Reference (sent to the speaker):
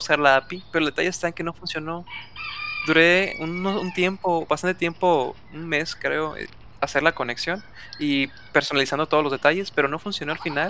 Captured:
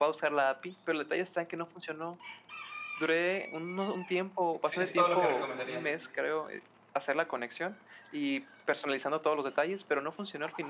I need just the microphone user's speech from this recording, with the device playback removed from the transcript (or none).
Sí, es todo lo que recomendaría,